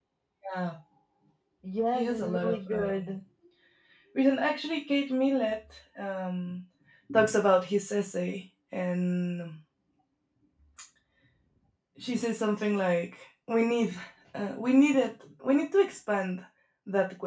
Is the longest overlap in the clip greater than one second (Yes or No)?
Yes